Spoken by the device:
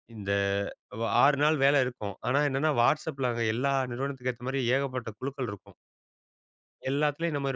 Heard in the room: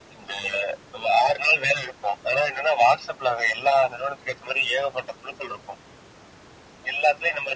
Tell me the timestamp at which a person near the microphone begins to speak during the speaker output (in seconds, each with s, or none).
none